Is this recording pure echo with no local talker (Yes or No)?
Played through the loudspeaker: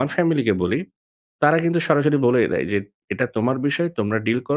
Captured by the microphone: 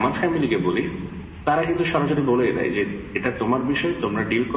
Yes